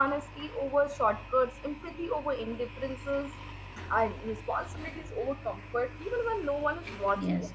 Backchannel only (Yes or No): No